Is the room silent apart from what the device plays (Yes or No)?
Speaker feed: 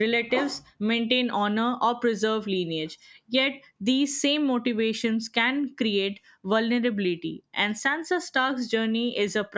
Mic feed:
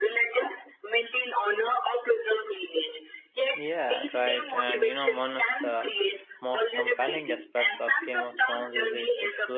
No